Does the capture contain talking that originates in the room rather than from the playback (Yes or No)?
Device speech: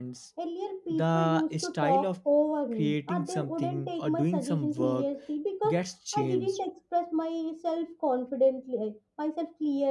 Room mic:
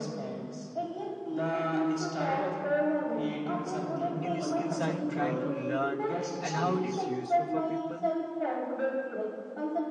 Yes